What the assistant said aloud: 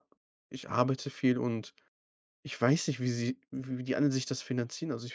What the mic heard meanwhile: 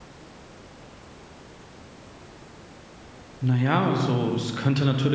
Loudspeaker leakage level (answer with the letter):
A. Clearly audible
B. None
B